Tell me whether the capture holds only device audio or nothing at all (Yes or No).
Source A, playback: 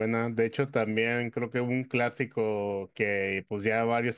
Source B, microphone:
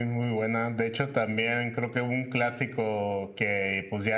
Yes